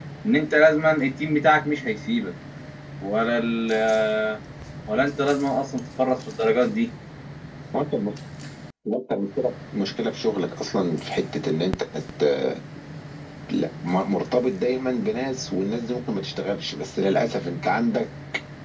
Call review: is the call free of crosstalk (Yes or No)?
Yes